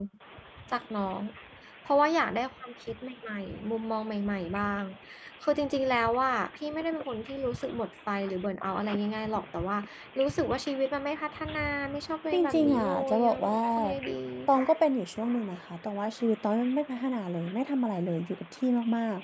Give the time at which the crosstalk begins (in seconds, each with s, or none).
12.3 s